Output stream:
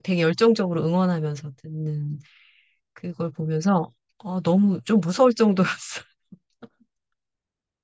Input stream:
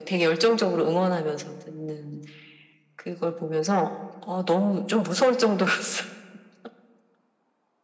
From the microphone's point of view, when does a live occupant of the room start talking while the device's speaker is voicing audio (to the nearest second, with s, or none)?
none